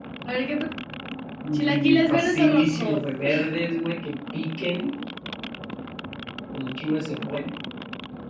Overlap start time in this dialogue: 1.5 s

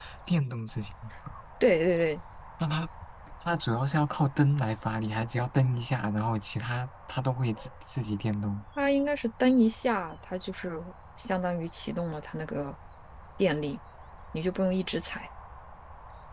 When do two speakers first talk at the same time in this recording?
none

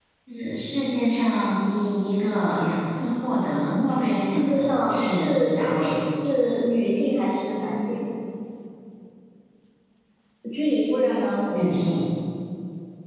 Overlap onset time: 4.3 s

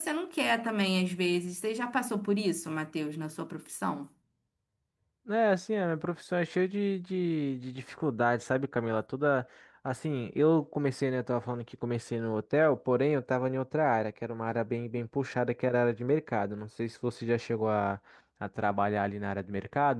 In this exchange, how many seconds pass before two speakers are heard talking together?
none

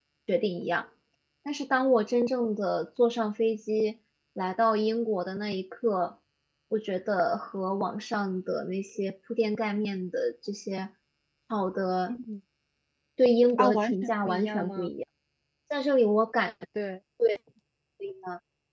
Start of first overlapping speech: 13.6 s

